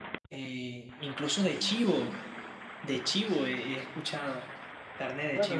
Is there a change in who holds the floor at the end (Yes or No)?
Yes